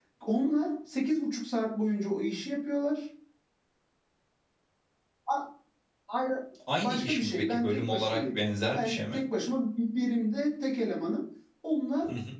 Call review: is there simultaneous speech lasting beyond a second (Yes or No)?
Yes